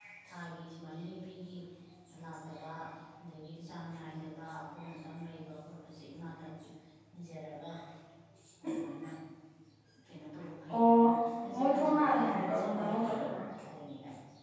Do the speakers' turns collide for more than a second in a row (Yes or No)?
Yes